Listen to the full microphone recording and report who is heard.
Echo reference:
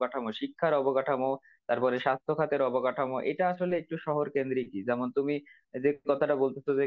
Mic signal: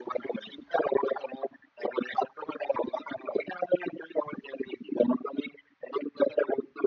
echo only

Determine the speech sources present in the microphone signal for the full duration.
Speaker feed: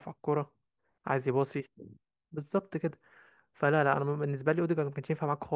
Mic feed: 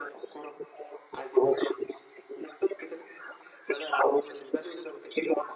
echo only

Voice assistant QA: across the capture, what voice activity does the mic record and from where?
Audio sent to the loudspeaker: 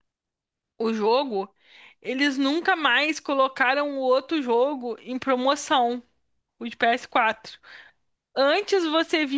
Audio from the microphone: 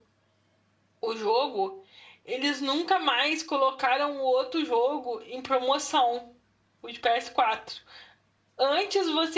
echo only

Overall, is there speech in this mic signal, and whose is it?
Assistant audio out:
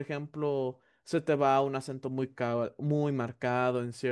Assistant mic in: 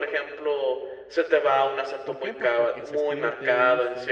both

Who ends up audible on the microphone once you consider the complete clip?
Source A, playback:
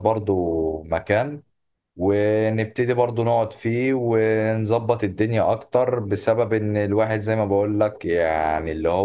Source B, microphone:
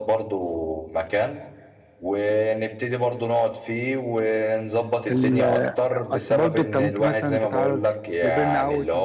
both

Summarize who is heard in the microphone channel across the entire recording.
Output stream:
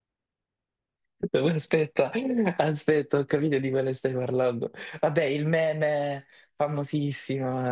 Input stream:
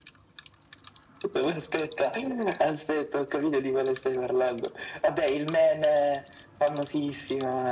echo only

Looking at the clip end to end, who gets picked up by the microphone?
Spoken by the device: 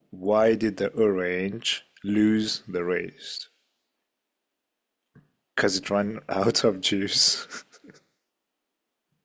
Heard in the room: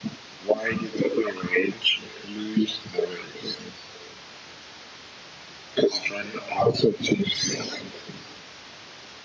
echo only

